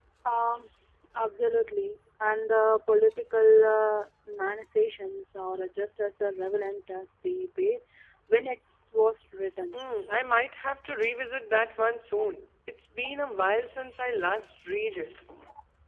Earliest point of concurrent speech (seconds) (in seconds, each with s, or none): none